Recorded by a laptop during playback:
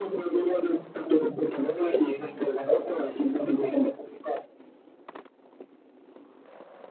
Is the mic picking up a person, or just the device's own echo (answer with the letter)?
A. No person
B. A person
A